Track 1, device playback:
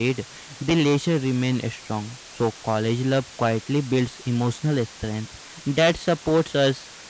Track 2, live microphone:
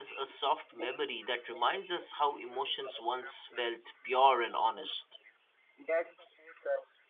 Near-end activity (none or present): present